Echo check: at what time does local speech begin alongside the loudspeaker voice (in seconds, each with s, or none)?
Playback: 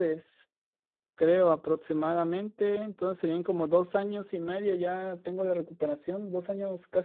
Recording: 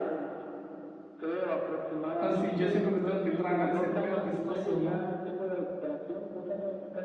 2.2 s